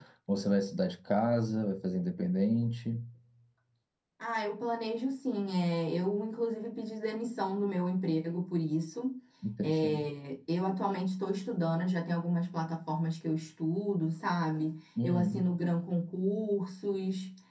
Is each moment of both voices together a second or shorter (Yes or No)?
Yes